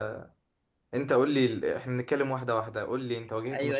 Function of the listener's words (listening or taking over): taking over